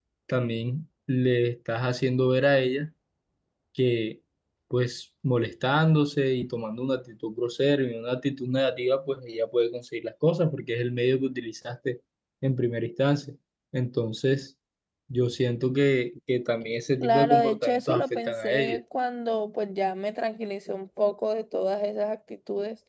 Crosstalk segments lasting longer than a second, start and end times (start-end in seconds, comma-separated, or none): 17.0-18.8